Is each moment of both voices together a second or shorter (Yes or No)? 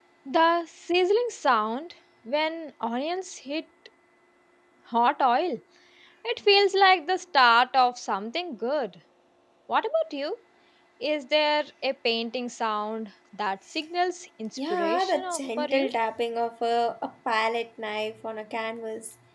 No